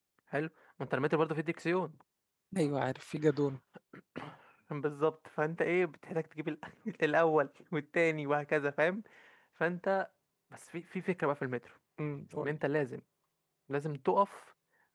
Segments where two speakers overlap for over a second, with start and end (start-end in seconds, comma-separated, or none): none